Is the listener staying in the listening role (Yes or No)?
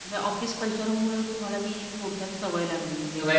No